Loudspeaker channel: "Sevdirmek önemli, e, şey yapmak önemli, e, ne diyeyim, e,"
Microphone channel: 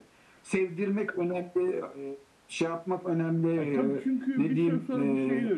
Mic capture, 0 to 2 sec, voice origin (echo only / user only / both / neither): echo only